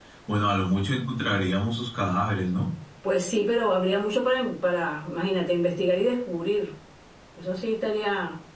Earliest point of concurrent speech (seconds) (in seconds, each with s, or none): none